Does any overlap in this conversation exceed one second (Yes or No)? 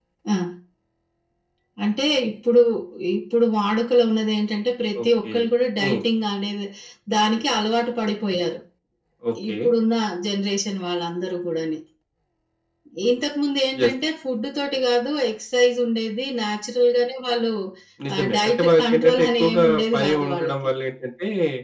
Yes